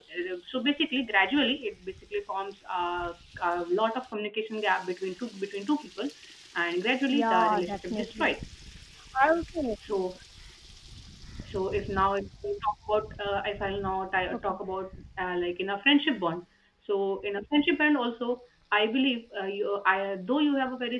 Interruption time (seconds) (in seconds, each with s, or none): 7.1 s